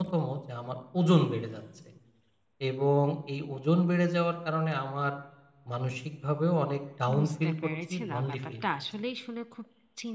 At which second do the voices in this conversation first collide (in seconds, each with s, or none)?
7.1 s